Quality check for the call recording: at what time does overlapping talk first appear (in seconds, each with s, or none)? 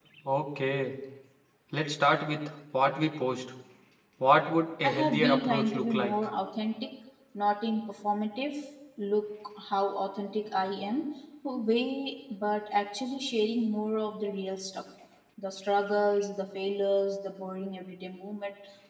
4.8 s